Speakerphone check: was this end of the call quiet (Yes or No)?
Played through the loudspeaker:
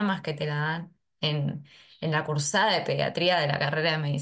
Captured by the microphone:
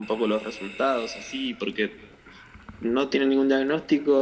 No